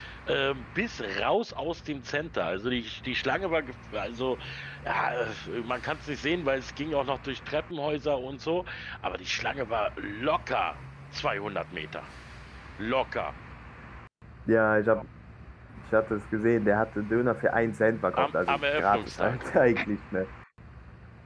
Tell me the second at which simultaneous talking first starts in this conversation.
18.2 s

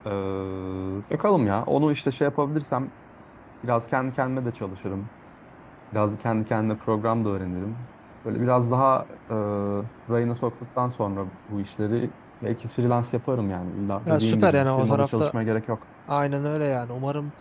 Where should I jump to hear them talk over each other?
14.1 s

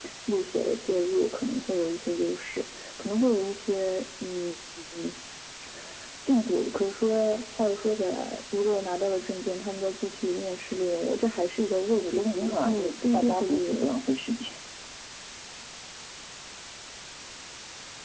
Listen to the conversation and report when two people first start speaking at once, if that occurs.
11.9 s

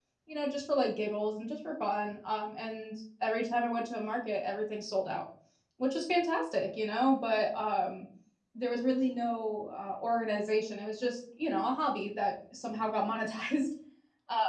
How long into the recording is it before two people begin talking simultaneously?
none

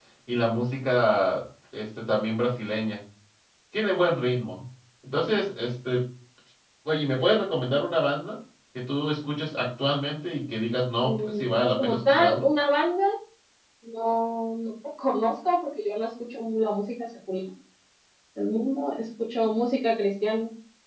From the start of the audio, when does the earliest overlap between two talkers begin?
11.0 s

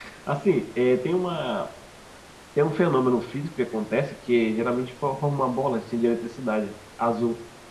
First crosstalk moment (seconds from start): none

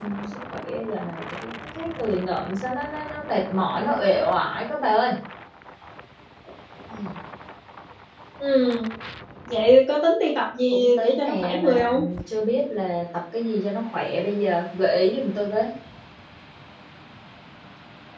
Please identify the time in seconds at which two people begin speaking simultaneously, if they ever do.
10.7 s

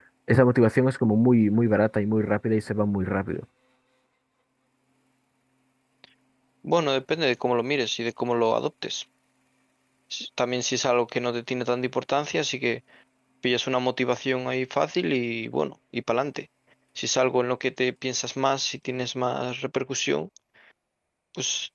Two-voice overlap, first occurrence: none

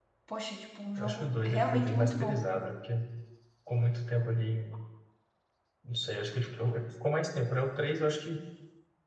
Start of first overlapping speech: 1.0 s

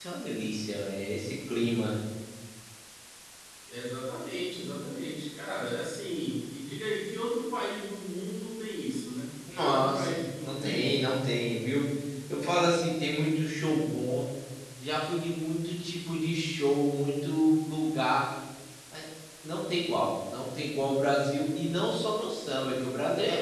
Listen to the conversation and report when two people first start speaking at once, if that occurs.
9.5 s

